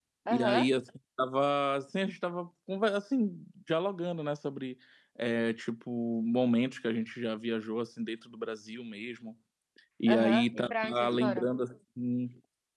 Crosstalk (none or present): present